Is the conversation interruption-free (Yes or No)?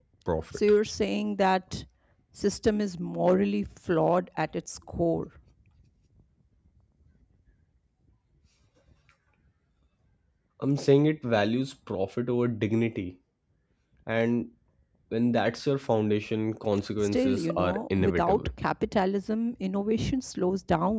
No